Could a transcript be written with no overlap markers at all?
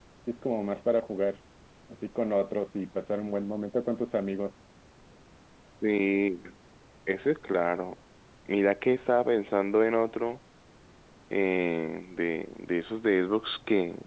Yes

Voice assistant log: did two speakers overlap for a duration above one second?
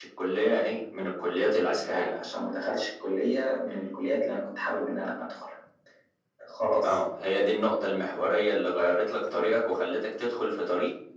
No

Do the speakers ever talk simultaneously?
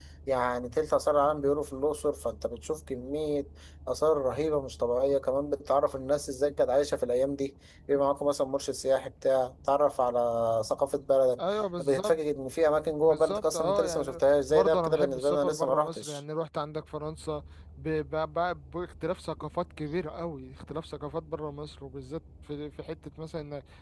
Yes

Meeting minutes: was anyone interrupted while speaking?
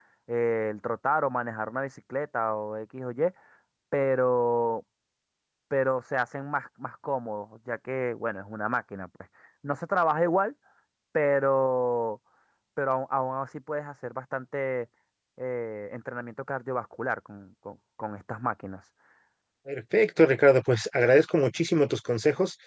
No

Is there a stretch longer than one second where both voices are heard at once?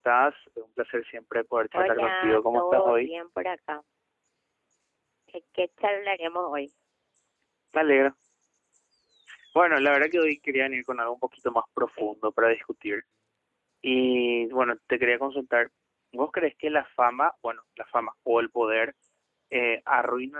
Yes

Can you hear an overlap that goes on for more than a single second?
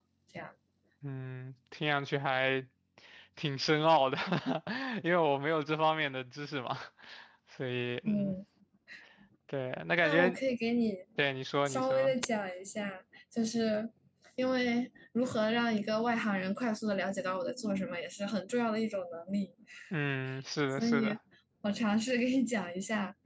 No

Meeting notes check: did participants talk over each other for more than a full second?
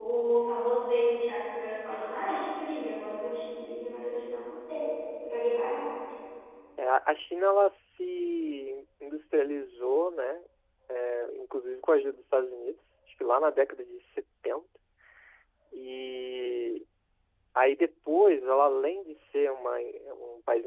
No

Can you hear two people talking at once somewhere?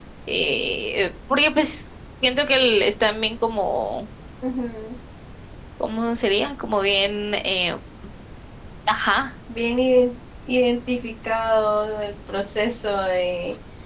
No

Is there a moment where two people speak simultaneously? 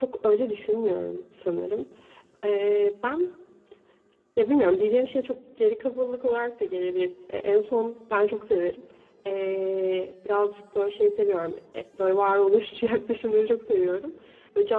No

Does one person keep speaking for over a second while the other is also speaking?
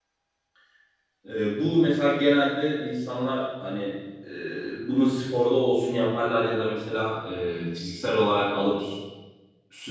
No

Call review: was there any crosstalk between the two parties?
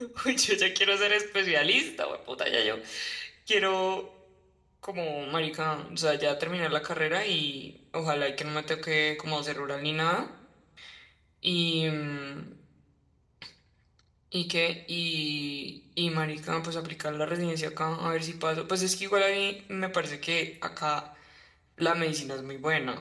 No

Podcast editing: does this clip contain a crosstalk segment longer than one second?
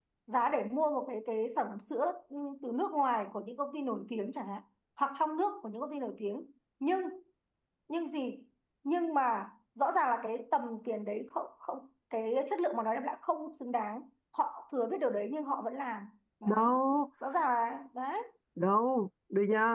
No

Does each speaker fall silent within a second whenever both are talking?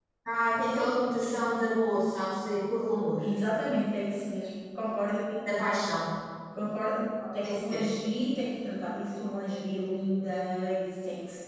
Yes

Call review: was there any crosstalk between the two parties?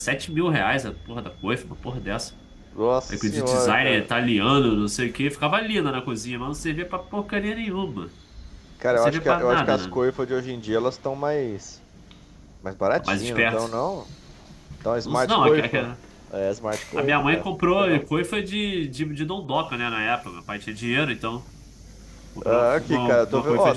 Yes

